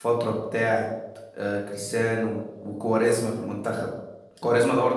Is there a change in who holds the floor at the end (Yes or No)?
No